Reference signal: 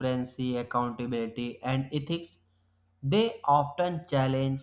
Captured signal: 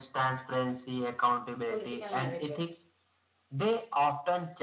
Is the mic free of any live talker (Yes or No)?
No